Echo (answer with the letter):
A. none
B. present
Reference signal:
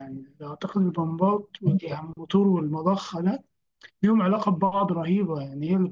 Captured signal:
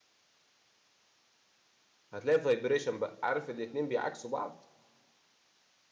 A